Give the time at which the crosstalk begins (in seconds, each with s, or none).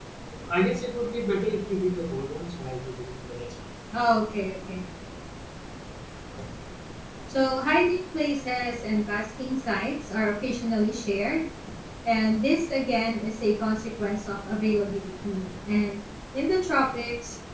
none